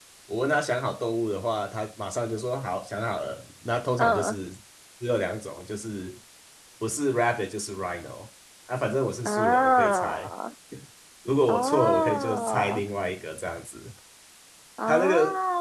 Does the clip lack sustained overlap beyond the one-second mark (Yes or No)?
No